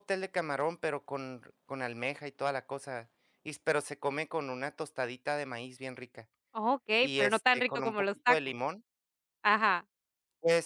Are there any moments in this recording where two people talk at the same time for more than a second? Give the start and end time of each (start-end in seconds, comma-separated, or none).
7.0-8.4